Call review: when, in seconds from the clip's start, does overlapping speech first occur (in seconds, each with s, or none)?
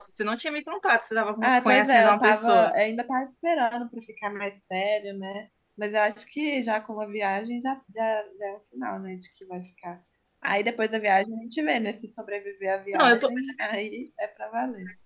1.4 s